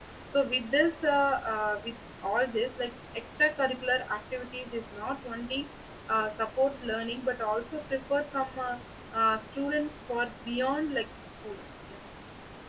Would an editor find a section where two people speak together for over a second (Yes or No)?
No